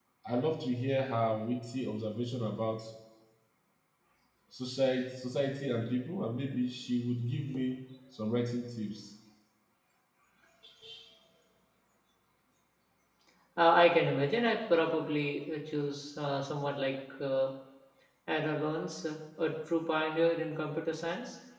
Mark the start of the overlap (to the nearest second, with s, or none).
none